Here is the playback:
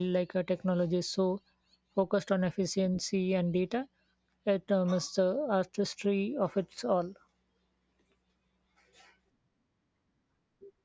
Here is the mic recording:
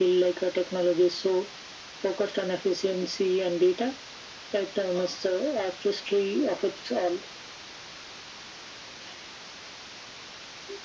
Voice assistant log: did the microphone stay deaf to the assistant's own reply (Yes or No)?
No